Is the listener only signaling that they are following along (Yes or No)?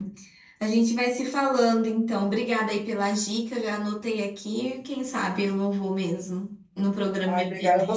No